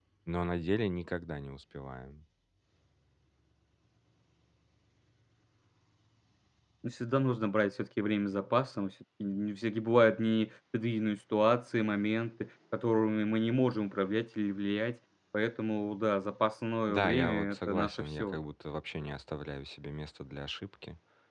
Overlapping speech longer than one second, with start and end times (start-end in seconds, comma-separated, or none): 16.9-18.4